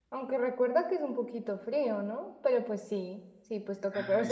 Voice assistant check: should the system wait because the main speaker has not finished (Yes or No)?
Yes